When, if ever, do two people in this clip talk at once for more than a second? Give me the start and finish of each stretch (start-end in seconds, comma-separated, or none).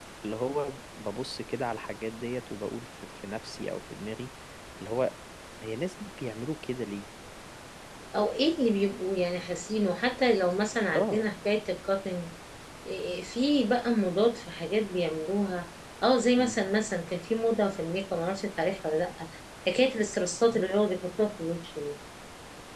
none